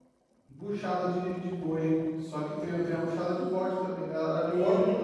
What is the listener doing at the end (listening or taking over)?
taking over